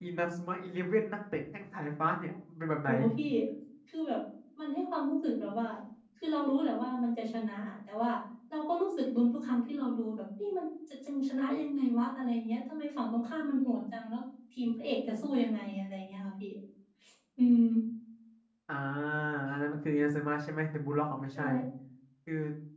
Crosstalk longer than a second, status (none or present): none